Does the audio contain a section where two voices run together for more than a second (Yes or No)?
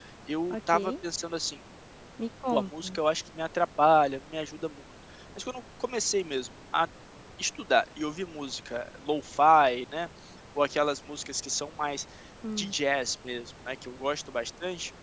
No